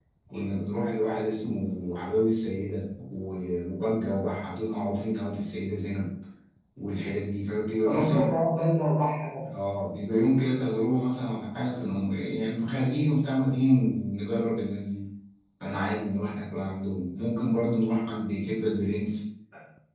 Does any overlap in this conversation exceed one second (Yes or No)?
No